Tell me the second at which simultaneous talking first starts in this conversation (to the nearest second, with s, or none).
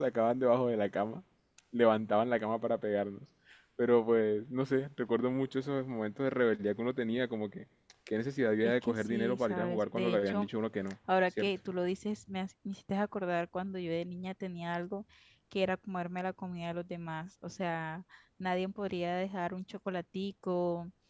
9 s